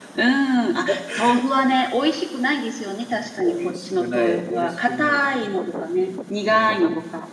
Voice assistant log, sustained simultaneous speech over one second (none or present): present